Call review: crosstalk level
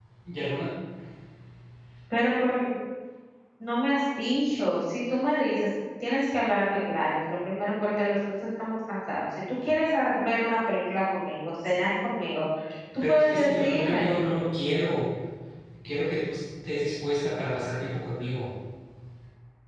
present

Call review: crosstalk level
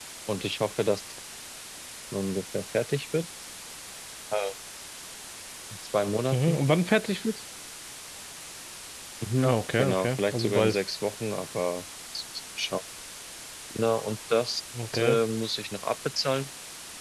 present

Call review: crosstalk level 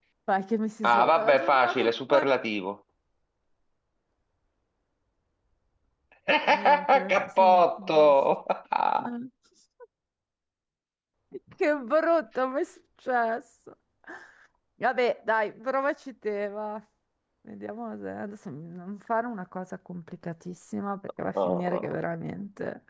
present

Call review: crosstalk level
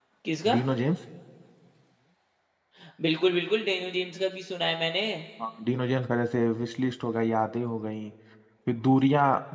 none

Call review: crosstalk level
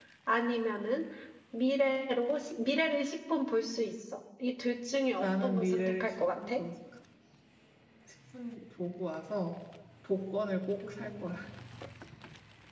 present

